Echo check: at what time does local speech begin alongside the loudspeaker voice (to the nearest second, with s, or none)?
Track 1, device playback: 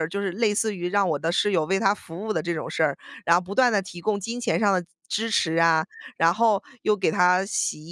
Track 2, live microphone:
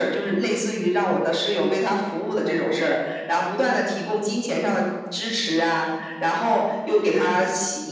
none